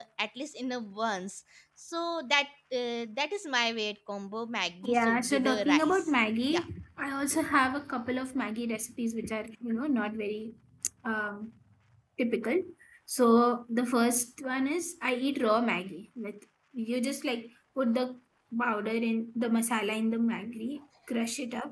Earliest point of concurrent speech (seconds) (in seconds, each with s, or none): 4.8 s